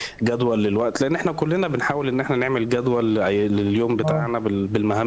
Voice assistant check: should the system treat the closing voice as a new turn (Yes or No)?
No